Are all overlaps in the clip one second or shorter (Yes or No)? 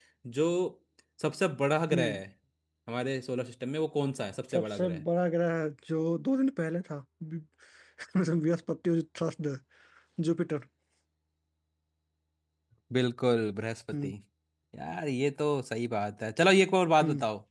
Yes